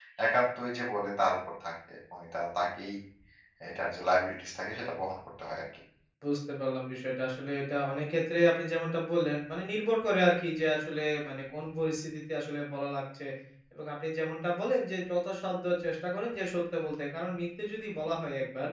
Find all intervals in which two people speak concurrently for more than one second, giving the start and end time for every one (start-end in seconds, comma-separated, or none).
none